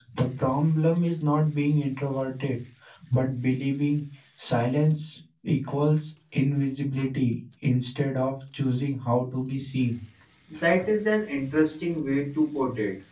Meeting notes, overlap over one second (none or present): none